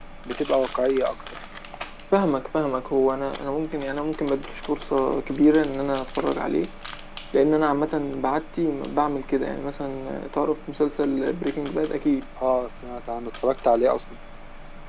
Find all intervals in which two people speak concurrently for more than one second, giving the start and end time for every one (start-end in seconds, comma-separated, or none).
none